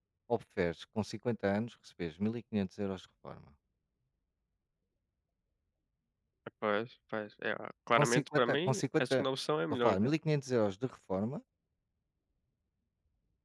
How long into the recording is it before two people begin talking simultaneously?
8 s

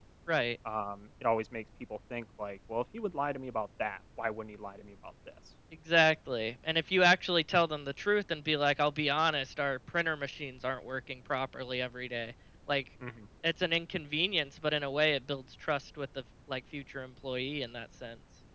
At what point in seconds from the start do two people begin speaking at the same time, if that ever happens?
none

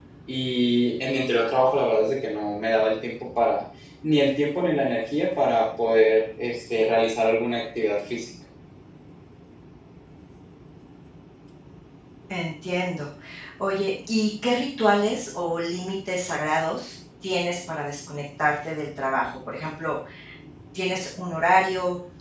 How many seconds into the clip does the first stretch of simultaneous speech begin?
none

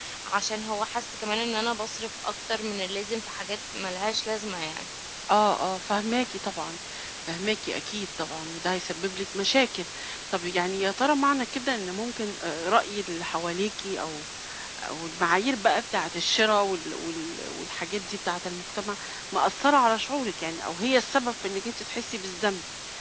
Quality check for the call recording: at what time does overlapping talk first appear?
none

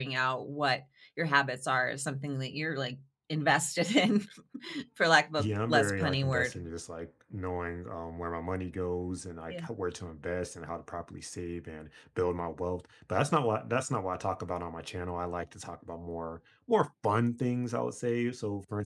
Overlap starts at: 5 s

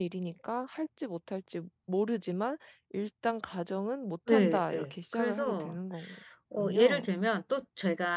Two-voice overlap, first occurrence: 4 s

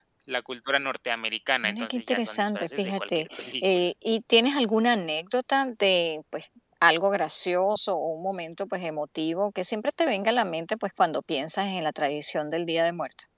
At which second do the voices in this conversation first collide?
2 s

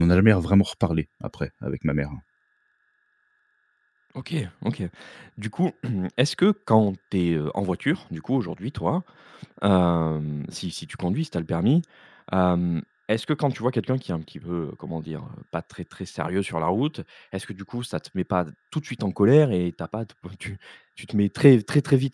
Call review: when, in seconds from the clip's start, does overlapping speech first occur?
none

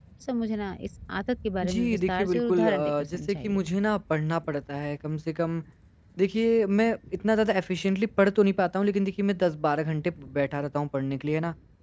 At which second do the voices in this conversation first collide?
2 s

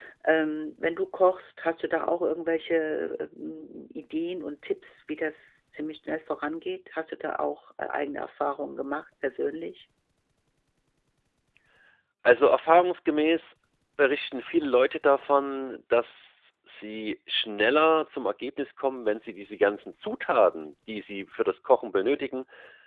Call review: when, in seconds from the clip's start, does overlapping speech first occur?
none

